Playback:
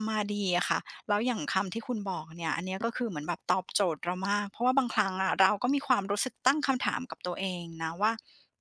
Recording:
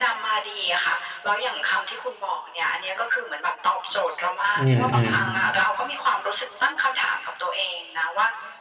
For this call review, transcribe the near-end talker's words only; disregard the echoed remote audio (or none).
ๆอืมๆ